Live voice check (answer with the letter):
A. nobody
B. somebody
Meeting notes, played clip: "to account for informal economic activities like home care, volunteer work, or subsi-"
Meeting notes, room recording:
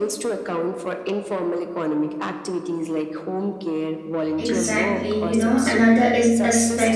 B